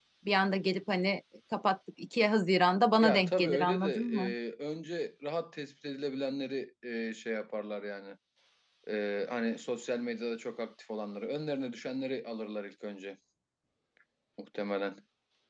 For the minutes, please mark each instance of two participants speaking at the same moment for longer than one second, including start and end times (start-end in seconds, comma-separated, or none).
3.0-4.3